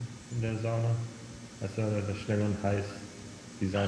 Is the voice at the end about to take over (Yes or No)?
Yes